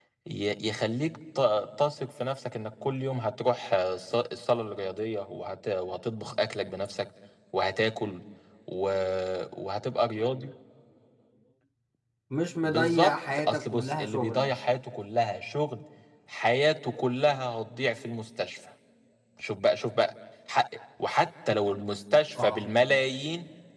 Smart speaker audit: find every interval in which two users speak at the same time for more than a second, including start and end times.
12.6-14.6

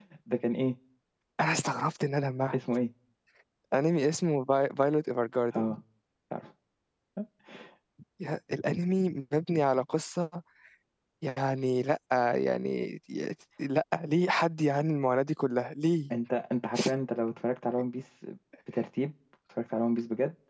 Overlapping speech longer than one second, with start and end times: none

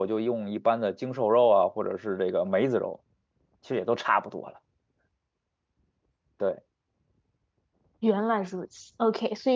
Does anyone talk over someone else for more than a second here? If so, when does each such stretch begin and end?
none

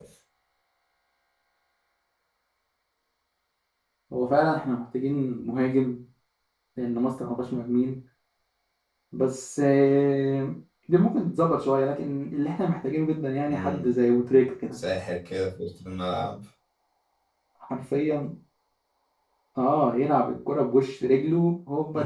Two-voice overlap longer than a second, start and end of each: none

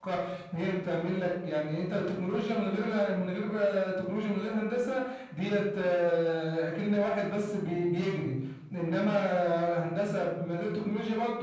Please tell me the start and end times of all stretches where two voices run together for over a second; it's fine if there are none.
none

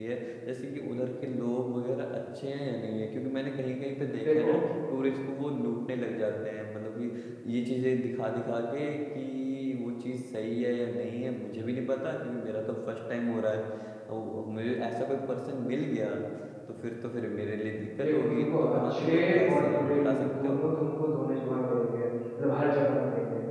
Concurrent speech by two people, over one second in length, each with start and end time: 18.0-20.6

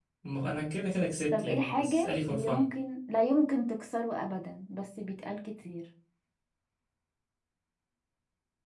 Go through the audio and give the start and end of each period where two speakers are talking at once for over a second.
1.3-2.7

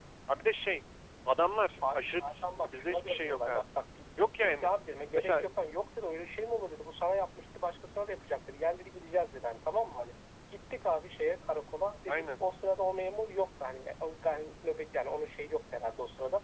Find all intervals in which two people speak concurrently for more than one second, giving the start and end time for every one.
1.9-3.6

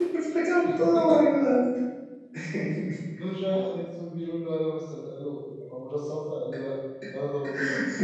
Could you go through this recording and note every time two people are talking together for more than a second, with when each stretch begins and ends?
none

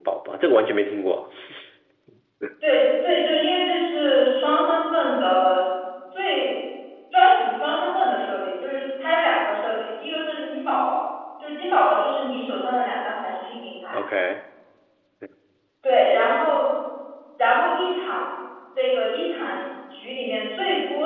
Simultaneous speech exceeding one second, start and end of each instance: none

